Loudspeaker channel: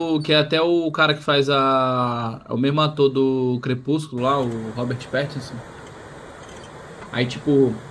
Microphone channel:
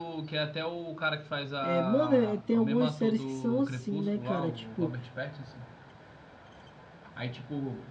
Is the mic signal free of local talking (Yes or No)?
No